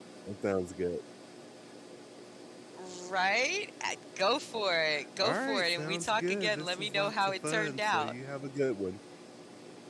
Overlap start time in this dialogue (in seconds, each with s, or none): 5.2 s